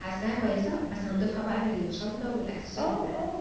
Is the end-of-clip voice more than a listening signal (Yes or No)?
Yes